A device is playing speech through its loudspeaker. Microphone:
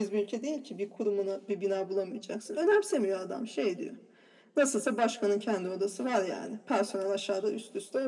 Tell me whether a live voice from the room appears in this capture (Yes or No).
No